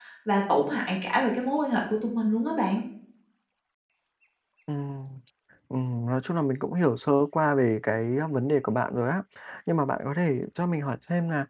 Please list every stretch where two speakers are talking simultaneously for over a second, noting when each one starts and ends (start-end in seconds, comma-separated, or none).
none